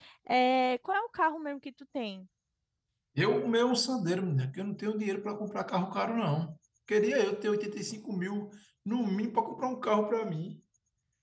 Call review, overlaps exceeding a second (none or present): none